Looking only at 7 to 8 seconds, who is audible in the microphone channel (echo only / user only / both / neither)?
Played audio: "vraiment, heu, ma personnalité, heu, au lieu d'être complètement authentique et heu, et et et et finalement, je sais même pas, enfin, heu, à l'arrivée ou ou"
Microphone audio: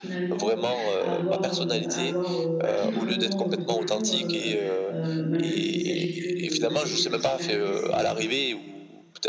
both